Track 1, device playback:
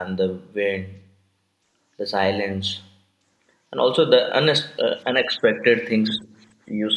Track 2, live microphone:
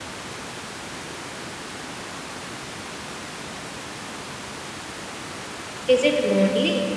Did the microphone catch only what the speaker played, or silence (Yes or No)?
No